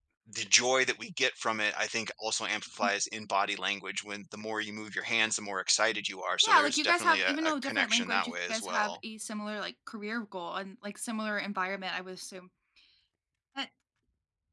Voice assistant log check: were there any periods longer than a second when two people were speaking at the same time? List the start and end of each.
6.4-9.0

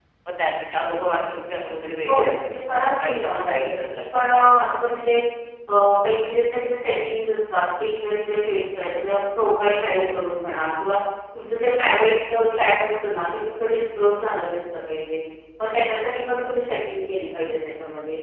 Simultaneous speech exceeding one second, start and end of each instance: 2.1-4.9

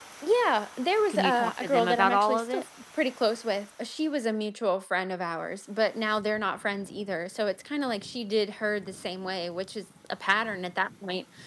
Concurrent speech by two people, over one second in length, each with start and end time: 1.1-2.6

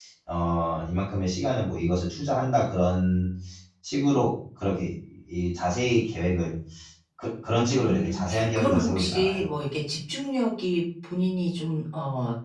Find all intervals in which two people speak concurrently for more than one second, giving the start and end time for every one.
7.7-9.4

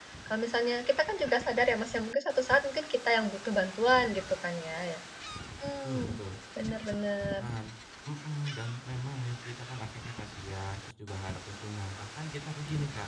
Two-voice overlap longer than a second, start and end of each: none

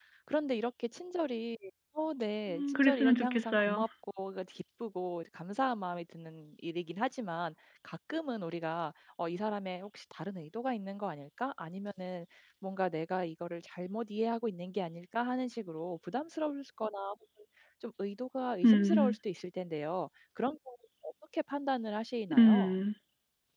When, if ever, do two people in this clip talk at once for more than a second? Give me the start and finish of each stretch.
2.5-3.8

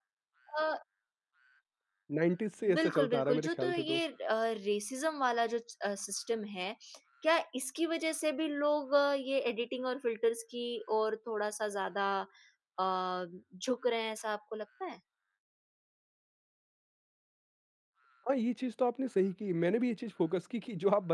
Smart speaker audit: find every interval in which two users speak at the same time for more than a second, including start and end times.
2.8-4.0

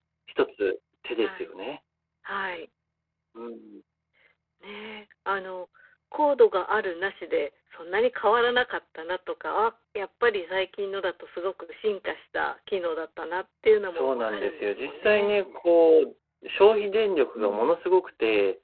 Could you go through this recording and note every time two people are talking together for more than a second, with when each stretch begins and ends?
13.9-15.3

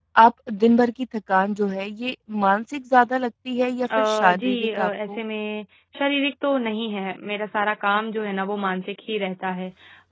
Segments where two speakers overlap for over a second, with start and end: 4.0-5.2

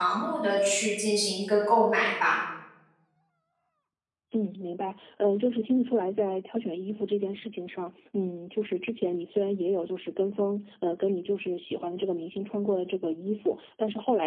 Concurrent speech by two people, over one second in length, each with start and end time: none

